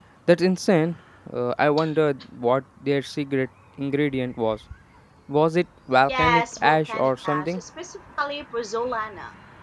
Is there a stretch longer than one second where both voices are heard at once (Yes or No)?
Yes